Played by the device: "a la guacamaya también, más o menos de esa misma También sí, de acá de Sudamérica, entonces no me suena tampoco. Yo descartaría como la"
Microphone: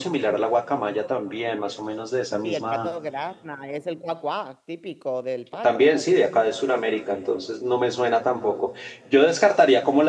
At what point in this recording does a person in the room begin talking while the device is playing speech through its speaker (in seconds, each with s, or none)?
2.4 s